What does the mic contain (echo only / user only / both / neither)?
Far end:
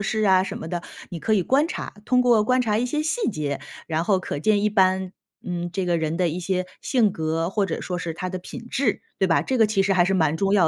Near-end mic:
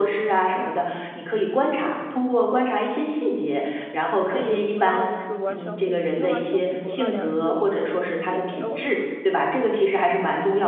both